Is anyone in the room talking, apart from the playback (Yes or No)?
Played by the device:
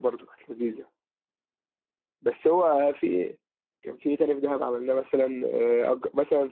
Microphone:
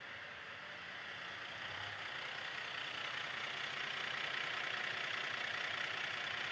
No